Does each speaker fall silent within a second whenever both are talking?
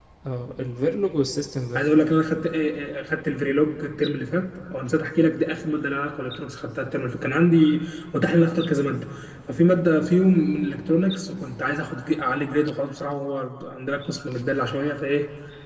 Yes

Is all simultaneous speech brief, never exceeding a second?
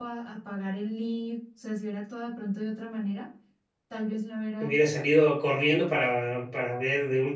Yes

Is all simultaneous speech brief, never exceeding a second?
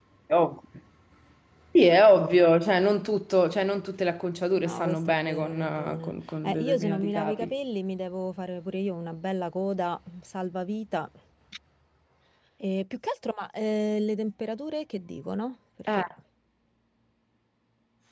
No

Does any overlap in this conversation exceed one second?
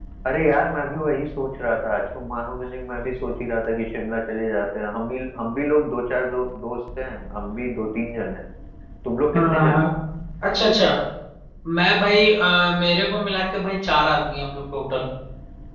No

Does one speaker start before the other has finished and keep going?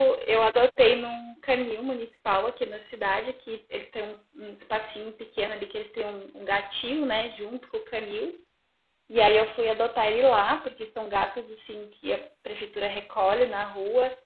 No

